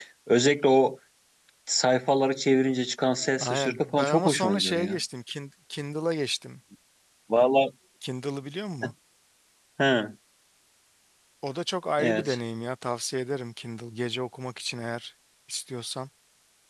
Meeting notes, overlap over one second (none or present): present